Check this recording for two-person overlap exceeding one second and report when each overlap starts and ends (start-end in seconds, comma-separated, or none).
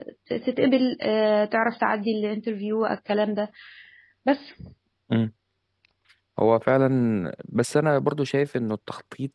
none